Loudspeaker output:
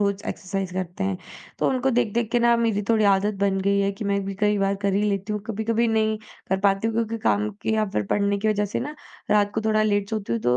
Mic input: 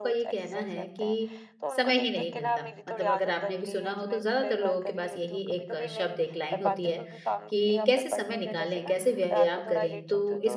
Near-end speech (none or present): present